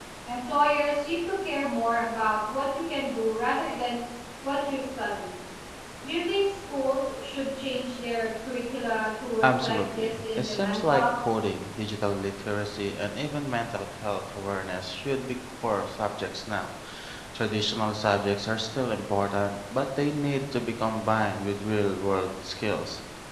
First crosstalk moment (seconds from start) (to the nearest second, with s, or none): 9 s